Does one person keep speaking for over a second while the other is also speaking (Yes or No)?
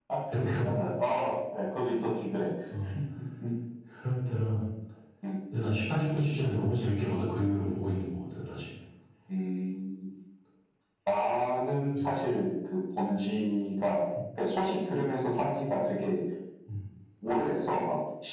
No